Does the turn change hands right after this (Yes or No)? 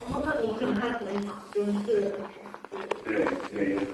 Yes